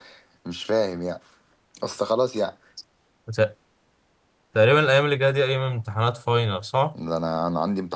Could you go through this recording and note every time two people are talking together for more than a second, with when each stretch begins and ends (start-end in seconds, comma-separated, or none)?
none